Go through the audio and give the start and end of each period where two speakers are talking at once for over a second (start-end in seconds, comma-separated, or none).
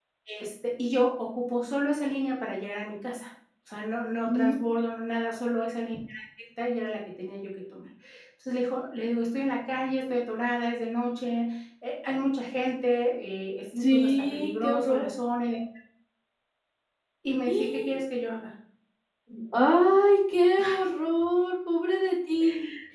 13.8-15.1